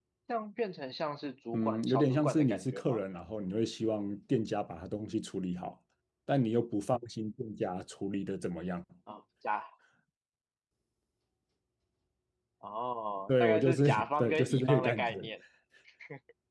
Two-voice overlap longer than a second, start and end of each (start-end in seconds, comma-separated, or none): 1.5-3.0, 13.3-15.1